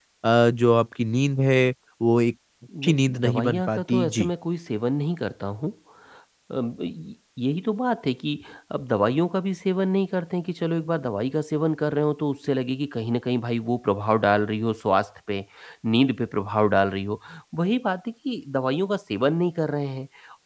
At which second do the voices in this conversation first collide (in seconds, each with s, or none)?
2.7 s